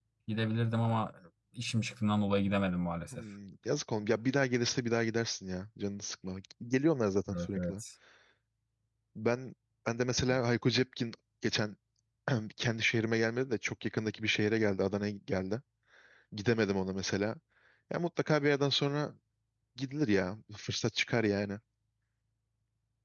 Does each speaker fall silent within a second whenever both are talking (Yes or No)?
Yes